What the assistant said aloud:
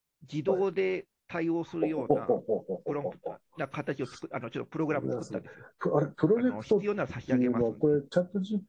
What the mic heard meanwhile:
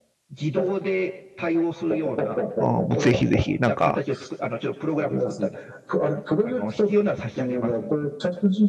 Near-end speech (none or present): present